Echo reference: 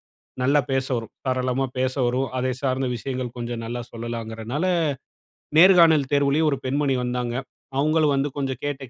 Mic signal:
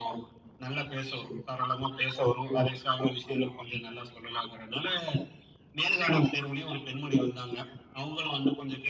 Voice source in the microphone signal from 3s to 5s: echo only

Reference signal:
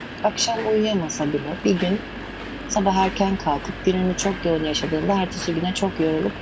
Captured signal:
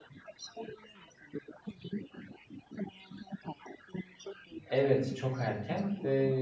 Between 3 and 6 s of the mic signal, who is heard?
both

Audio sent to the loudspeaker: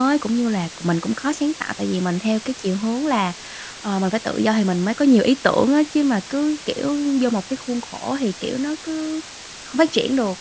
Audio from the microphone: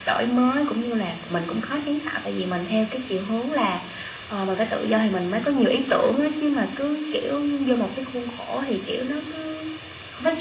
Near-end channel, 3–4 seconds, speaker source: echo only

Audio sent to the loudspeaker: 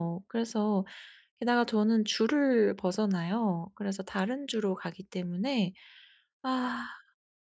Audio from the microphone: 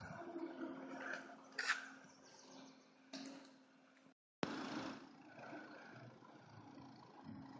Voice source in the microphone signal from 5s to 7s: neither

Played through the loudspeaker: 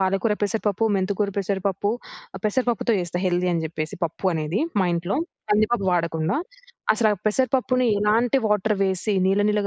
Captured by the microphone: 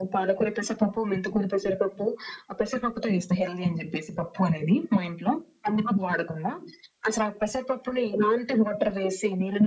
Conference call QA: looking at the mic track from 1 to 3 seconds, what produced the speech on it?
echo only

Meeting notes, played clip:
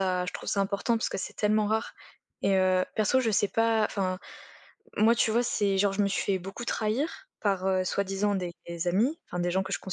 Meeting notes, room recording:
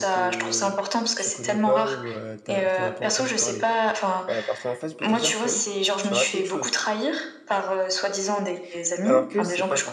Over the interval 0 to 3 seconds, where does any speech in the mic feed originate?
both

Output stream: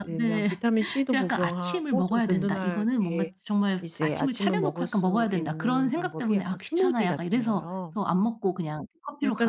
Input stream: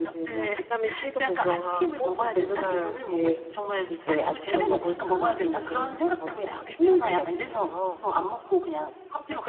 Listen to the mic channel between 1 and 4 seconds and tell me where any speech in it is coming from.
echo only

